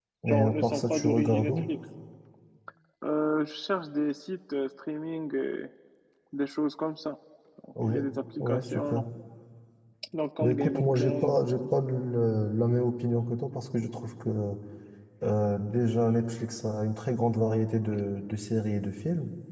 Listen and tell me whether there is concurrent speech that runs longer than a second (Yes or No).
Yes